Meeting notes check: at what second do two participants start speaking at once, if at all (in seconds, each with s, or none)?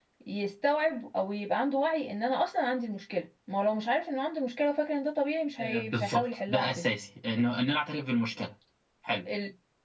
5.6 s